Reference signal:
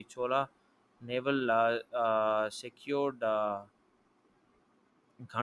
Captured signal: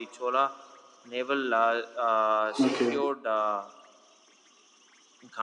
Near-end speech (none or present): present